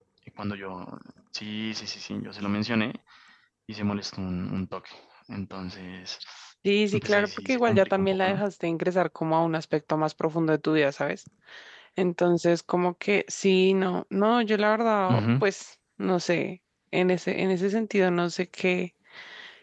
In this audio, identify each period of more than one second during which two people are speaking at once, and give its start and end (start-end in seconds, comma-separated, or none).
7.0-8.4